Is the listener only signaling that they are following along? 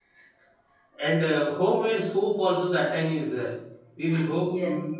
Yes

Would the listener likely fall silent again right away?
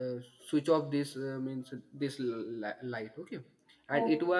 Yes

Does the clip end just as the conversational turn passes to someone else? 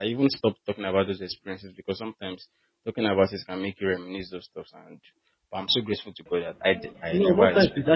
Yes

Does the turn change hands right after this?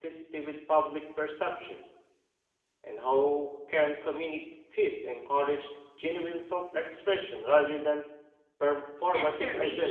Yes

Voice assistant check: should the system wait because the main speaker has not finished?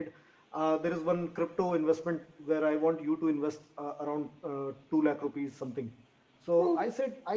Yes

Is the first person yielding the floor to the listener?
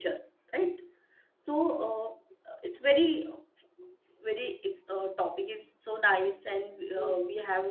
Yes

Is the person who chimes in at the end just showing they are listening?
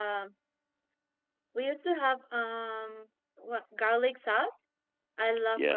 No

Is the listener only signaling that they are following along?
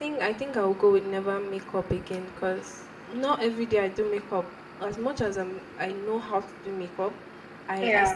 Yes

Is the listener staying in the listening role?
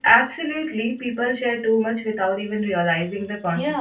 No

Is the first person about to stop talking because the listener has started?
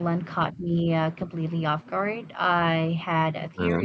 No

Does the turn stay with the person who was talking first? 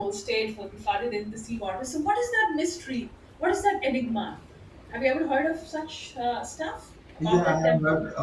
No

